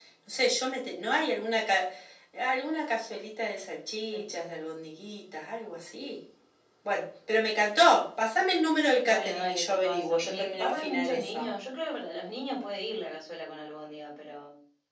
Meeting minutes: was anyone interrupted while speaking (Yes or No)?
Yes